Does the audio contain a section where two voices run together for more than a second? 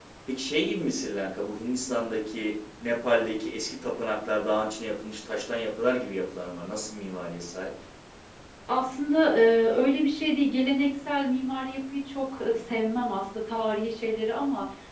No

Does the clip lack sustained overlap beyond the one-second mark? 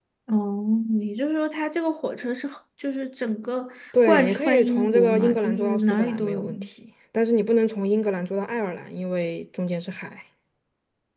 No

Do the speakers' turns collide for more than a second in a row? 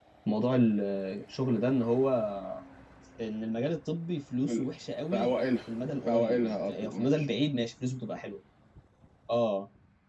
Yes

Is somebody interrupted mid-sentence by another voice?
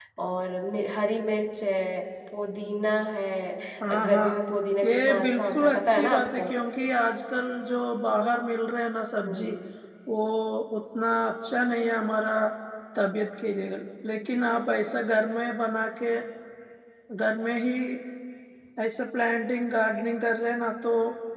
Yes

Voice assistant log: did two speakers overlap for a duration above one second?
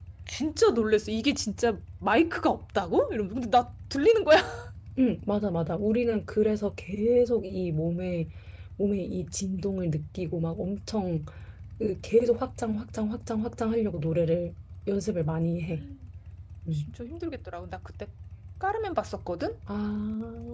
No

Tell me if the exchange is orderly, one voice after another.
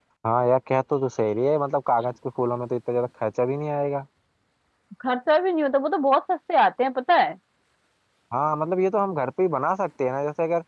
Yes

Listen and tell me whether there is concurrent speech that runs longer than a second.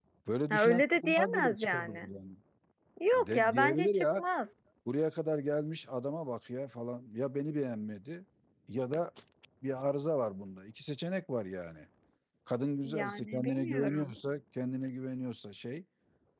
Yes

